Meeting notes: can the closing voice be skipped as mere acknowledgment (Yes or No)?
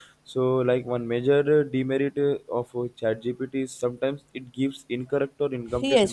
No